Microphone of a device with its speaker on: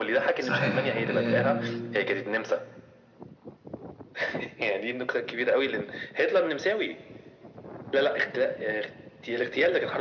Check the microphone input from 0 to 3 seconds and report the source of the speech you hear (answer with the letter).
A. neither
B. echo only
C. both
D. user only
C